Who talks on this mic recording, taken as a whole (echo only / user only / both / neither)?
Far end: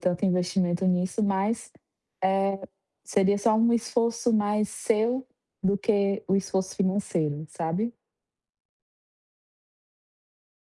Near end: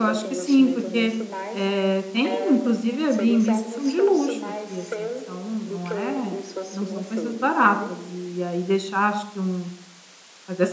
both